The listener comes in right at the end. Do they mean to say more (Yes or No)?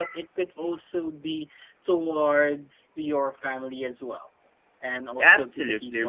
Yes